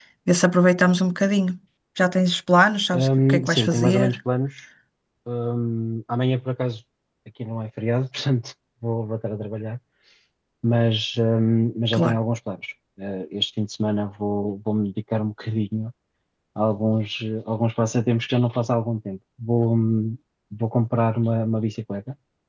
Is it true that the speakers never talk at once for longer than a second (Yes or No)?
No